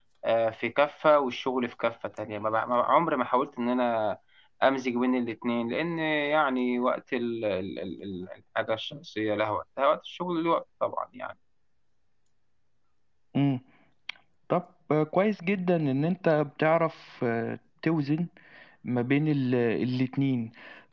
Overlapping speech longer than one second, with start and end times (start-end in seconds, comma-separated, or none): none